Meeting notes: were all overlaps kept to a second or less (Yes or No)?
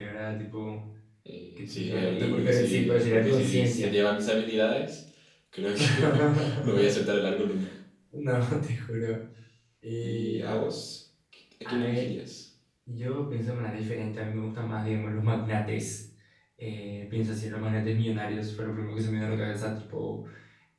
No